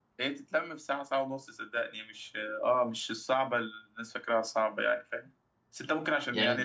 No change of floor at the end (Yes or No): Yes